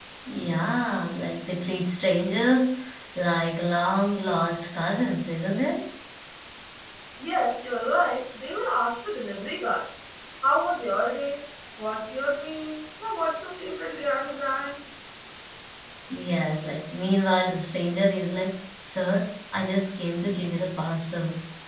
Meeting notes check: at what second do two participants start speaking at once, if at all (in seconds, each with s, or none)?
none